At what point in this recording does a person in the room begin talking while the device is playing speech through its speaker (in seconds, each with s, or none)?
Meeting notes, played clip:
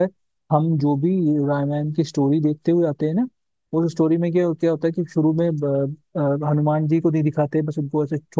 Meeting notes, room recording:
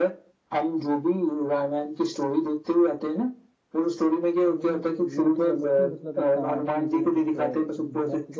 4.5 s